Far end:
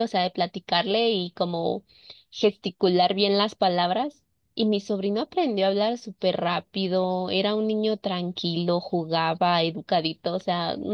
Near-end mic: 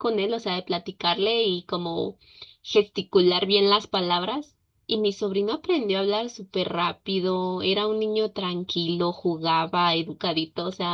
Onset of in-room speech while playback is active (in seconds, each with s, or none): none